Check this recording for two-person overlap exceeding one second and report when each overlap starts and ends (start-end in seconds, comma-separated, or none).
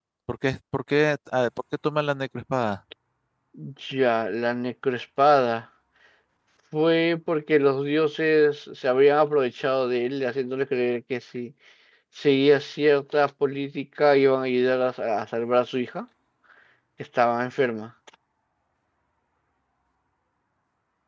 none